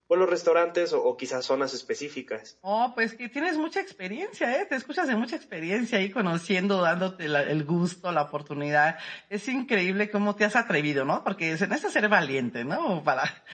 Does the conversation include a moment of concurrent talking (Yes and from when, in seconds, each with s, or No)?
No